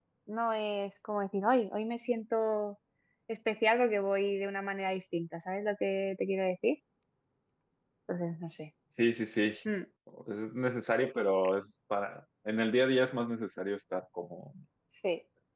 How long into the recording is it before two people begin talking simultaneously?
none

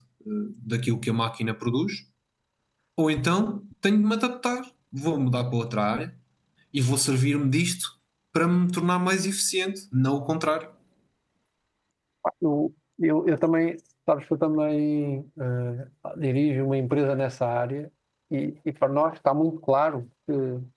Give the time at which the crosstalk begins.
none

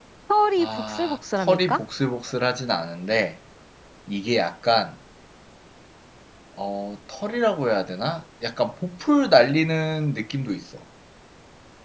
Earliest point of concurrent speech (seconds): 0.6 s

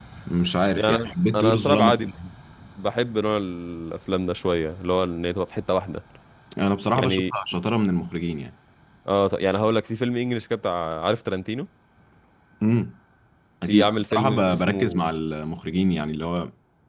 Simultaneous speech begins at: 0.8 s

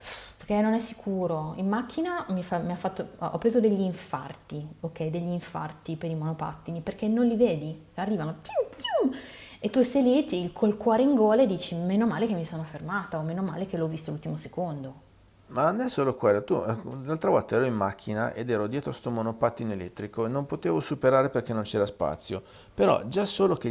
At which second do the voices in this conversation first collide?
none

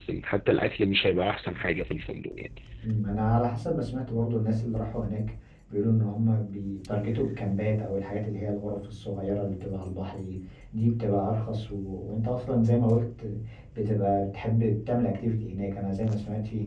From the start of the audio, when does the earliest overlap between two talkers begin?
none

